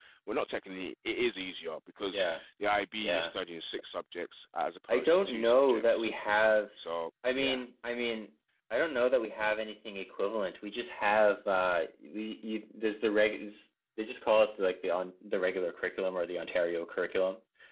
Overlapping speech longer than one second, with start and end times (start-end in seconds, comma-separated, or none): 4.9-6.1